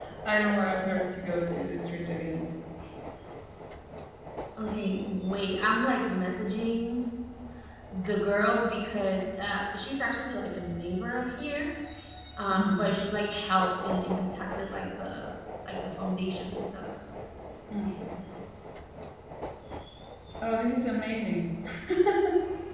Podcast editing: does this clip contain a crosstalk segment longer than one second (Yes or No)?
No